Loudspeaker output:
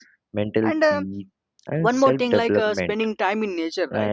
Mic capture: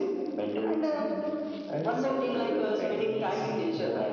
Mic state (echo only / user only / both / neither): both